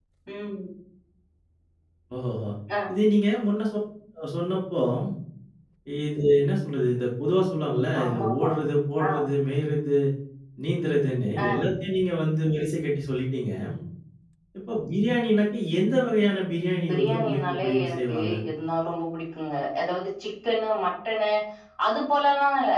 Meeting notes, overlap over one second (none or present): present